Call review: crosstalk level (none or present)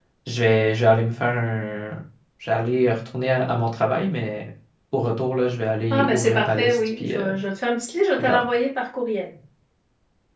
present